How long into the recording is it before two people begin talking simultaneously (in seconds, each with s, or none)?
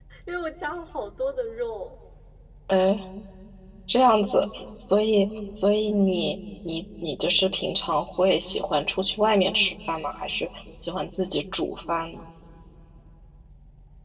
none